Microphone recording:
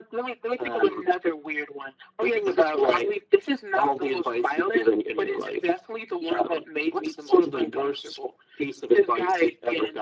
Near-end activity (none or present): none